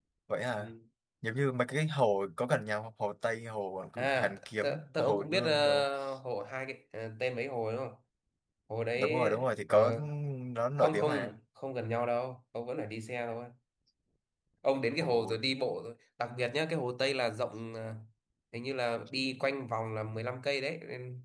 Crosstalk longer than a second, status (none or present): present